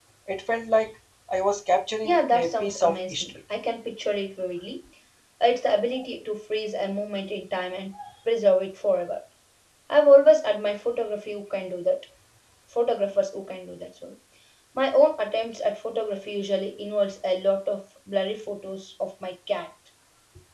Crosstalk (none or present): present